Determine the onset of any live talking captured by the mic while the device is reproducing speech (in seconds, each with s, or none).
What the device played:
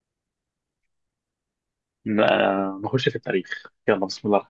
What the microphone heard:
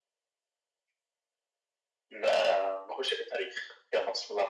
none